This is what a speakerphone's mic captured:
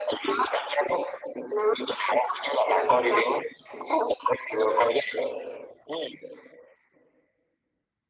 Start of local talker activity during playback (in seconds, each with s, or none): none